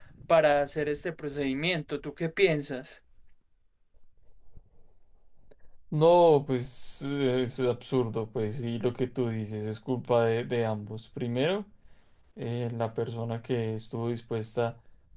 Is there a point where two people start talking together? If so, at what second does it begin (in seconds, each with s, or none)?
none